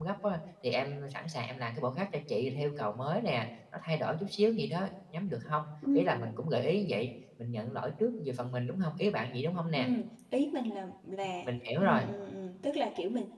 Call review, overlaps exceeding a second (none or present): none